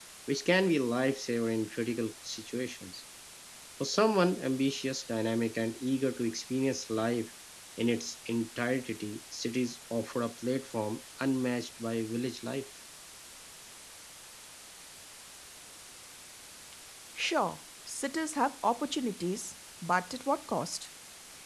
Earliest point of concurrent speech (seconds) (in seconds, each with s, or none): none